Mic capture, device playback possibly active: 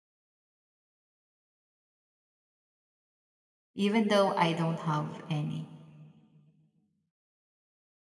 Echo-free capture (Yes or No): Yes